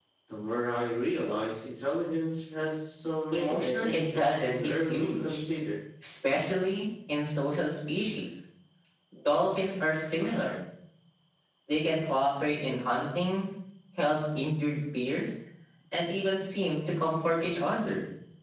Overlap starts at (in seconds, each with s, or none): 3.3 s